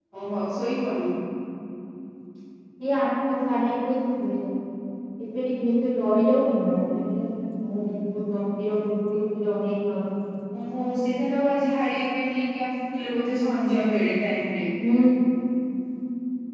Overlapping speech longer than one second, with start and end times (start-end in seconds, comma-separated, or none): none